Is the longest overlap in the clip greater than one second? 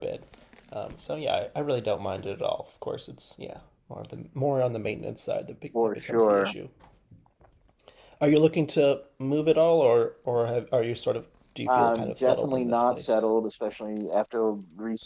Yes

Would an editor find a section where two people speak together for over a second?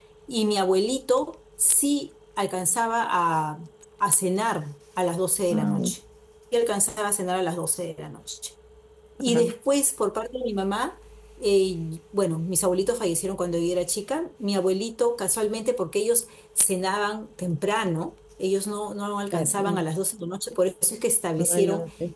No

